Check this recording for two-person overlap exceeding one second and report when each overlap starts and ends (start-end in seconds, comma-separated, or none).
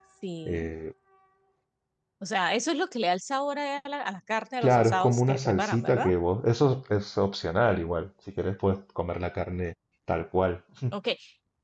4.6-6.1